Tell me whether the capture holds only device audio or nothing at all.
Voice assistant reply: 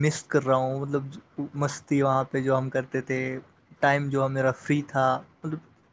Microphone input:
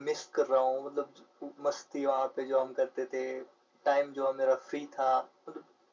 Yes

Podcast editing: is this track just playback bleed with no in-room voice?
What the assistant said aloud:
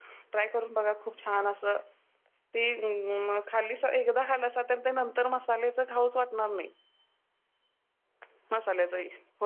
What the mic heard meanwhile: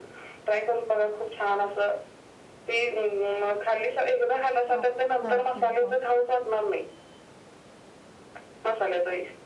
No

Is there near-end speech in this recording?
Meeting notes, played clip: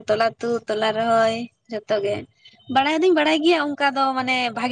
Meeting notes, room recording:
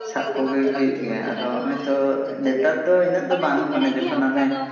Yes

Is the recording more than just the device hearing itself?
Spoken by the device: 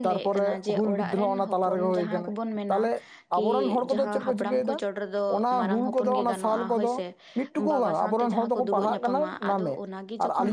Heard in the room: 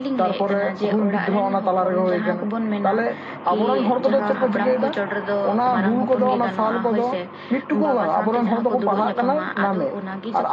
No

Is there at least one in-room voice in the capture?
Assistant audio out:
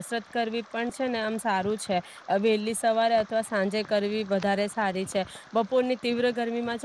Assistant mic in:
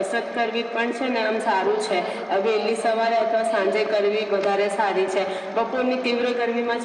Yes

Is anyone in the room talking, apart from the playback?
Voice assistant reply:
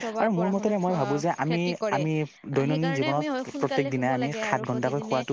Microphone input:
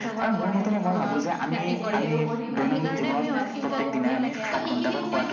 Yes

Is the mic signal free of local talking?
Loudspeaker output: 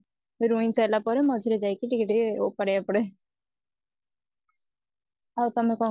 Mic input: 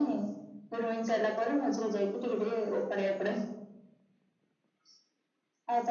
Yes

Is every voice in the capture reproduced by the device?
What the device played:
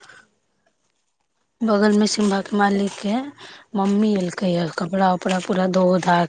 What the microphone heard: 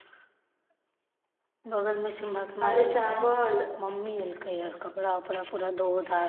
No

